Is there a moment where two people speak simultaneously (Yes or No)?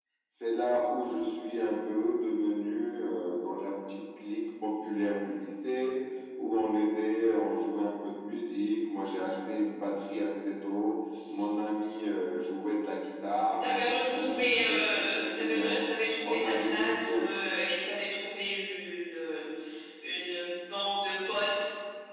Yes